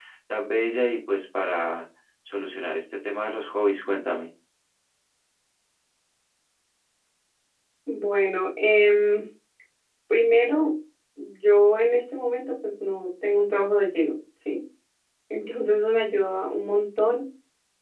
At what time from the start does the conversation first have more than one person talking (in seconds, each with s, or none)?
none